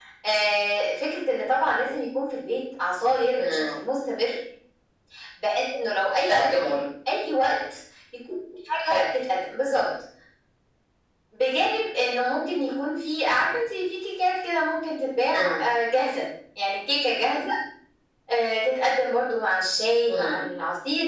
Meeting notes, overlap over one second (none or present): none